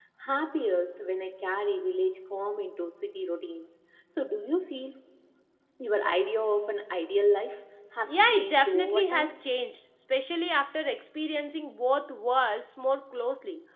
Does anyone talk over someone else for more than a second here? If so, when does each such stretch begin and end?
8.0-9.3

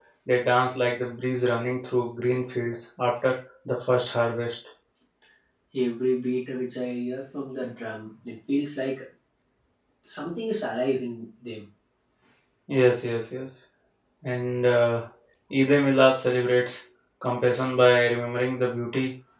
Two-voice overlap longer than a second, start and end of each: none

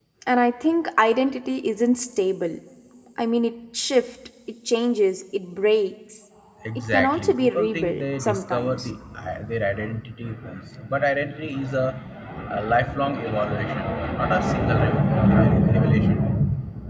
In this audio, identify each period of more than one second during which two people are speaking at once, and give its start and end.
6.9-8.9

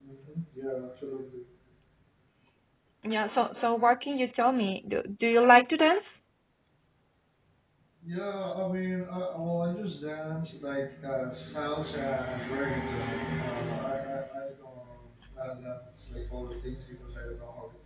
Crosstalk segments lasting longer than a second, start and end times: none

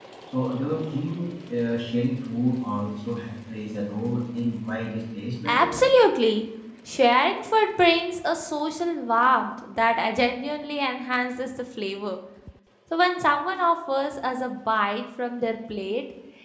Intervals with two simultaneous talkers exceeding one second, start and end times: none

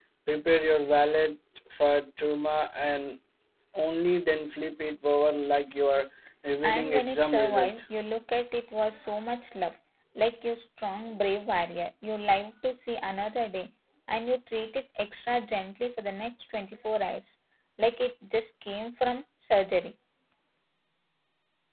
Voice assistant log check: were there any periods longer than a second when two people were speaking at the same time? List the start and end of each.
6.6-7.8

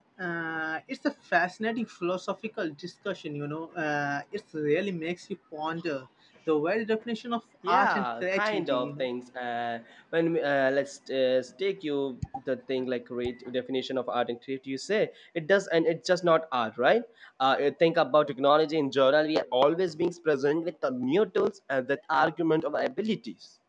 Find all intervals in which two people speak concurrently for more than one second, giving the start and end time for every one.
7.7-9.1

